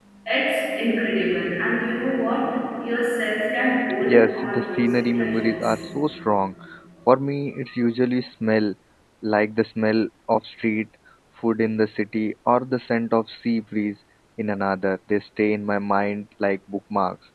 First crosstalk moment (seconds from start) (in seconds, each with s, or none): 4.0 s